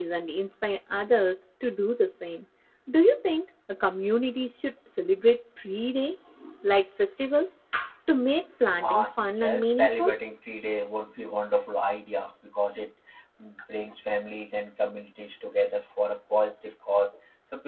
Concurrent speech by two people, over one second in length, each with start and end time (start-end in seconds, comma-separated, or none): 8.8-10.1